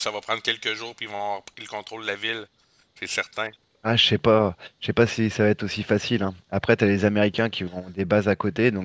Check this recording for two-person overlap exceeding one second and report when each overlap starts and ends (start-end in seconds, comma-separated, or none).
none